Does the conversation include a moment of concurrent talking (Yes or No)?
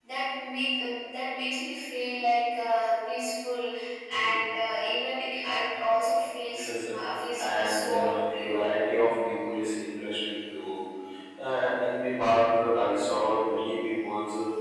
Yes